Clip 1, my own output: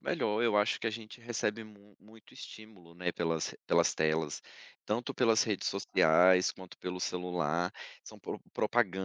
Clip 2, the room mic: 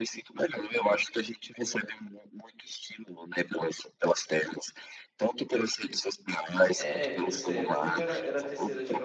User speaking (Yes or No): Yes